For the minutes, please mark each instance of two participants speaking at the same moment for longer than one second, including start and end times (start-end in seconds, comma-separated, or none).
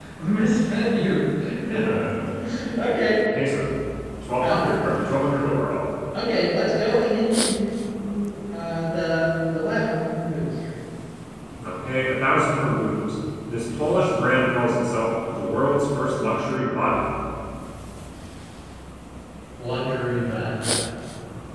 none